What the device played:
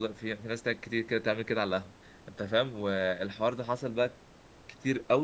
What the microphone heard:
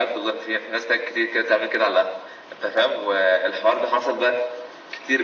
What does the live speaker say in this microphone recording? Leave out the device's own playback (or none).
none